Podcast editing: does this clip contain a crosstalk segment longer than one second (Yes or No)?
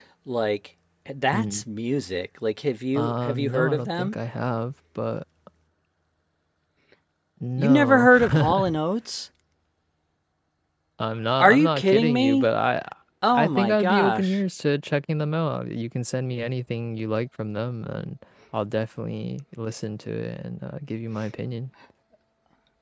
Yes